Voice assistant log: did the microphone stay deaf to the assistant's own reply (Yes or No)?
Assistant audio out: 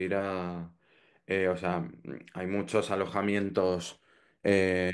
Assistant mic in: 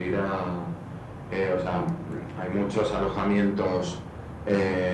No